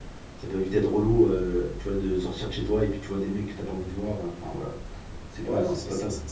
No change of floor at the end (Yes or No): No